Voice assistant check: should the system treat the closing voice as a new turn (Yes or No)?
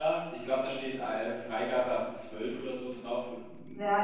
Yes